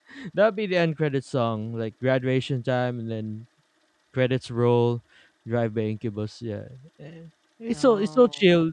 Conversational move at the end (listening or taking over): listening